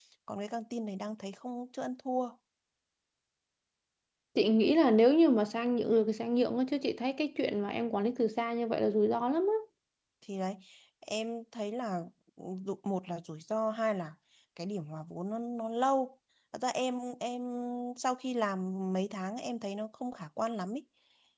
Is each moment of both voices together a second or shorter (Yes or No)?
Yes